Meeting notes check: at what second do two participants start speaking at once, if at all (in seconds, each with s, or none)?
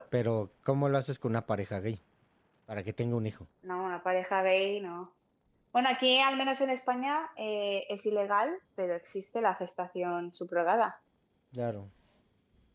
none